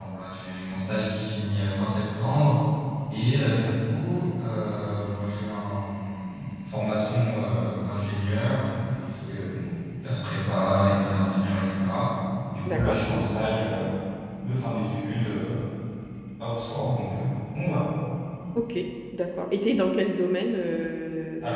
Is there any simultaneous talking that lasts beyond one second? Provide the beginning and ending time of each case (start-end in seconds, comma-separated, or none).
none